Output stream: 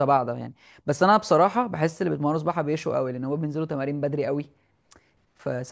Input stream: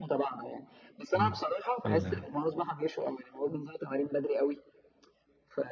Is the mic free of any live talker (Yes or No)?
No